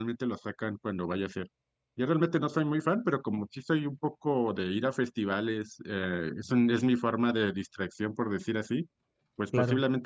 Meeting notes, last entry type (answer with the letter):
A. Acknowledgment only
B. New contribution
A